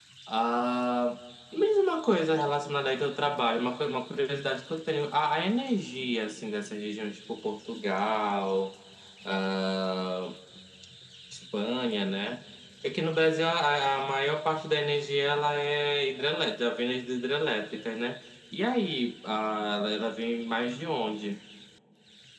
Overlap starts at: none

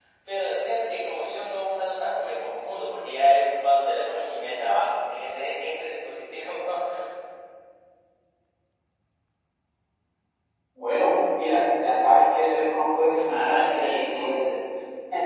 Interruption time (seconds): 13.1 s

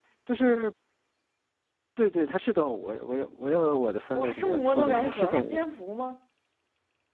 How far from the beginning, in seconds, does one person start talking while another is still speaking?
4.2 s

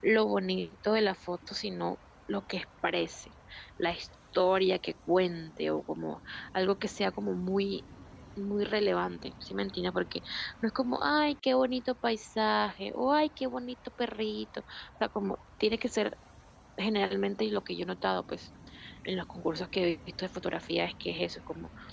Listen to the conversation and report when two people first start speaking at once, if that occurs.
none

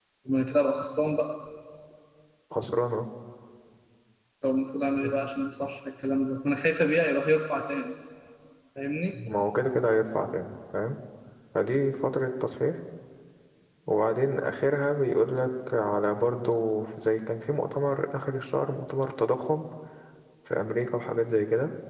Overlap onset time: none

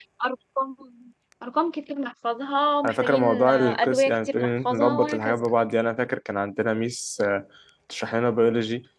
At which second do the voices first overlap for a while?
2.8 s

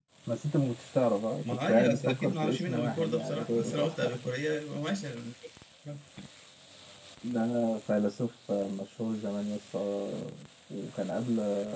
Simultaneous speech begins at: 1.4 s

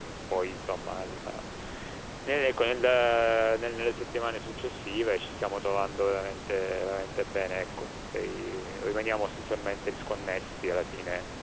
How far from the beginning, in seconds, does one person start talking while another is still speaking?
none

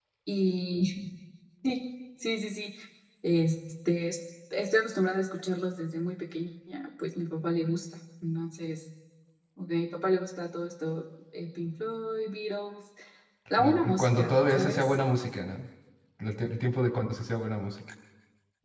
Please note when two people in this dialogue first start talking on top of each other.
13.6 s

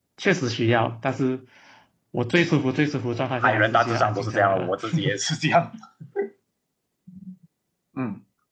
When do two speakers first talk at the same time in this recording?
3.4 s

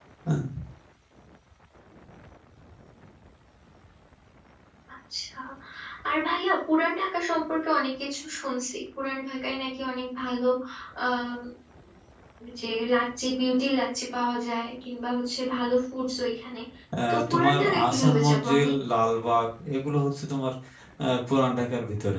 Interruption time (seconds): 17.1 s

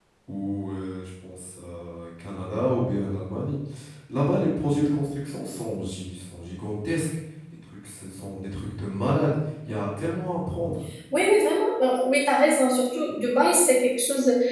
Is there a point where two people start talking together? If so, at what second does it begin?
none

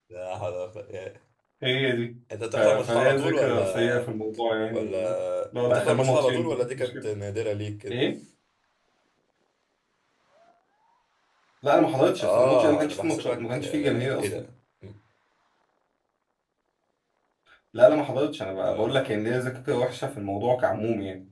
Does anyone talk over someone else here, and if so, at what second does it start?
2.5 s

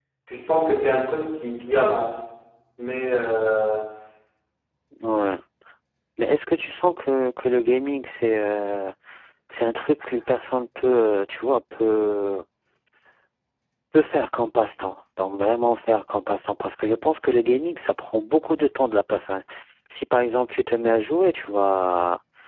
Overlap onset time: none

